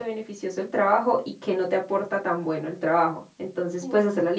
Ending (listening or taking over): listening